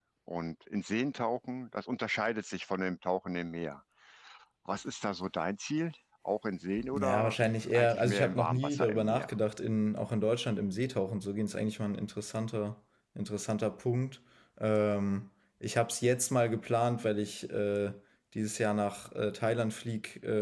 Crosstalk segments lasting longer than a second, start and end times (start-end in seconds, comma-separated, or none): 7.7-9.3